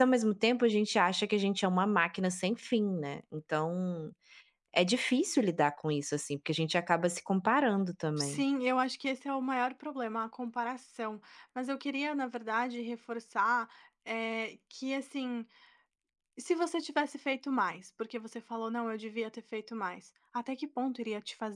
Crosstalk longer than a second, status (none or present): none